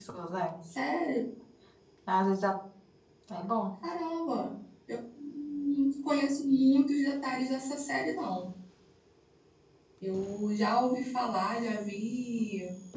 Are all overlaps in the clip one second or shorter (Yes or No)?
Yes